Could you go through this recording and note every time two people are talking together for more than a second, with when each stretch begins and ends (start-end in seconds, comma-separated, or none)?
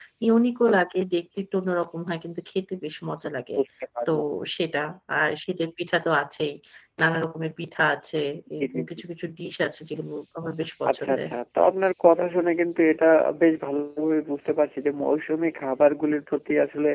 none